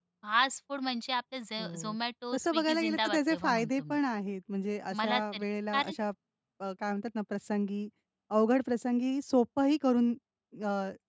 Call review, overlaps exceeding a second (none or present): present